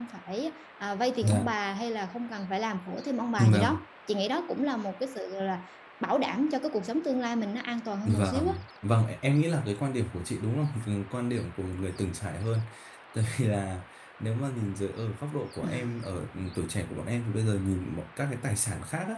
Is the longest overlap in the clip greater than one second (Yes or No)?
No